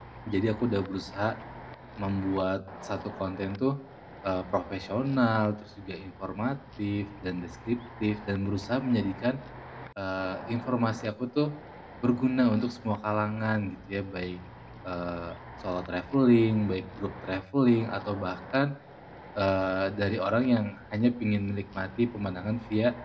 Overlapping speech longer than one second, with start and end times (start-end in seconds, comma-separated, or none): none